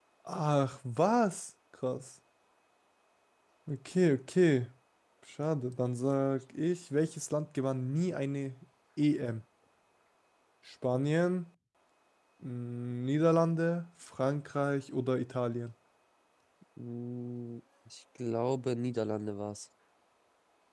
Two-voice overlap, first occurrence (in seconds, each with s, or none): none